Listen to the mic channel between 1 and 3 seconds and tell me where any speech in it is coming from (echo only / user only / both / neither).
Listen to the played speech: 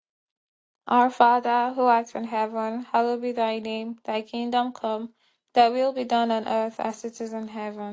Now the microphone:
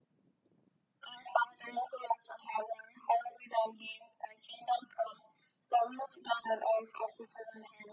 echo only